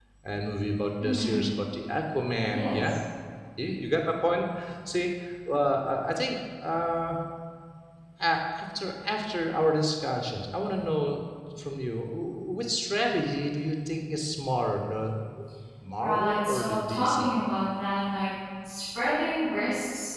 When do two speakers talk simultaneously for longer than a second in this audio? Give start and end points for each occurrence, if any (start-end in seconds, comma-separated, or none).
16.0-17.3